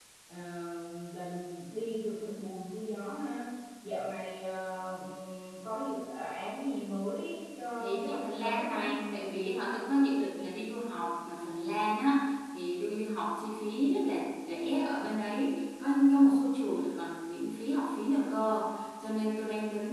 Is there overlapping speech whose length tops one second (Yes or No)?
Yes